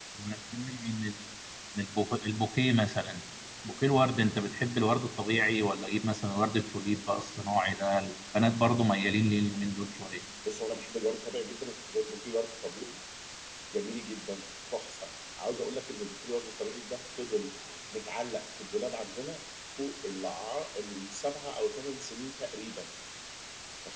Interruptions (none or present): none